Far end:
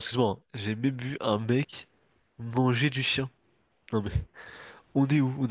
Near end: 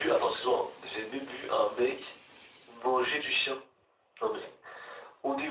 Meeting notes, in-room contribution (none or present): none